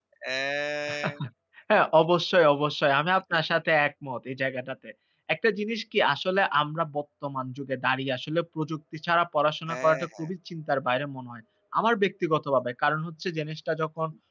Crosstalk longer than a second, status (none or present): none